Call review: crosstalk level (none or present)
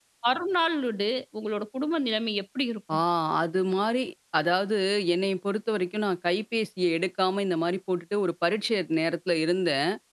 none